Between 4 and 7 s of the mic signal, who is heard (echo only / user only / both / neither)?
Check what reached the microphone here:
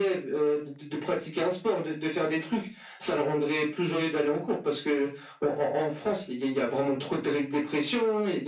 echo only